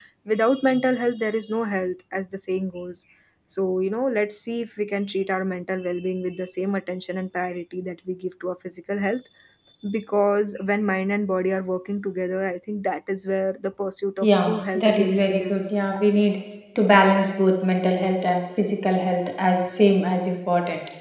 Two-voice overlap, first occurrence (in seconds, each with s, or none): 14.2 s